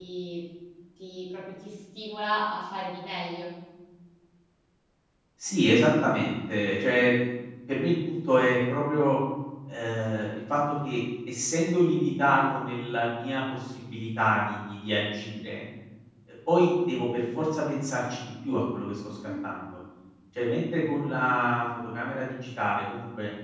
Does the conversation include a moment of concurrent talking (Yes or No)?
No